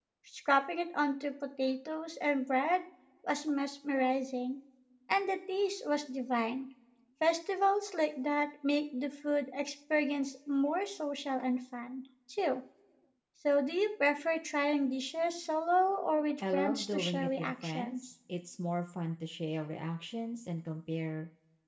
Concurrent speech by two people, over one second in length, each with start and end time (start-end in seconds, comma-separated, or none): 16.5-18.0